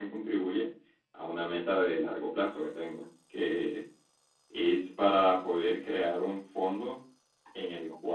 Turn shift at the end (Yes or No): No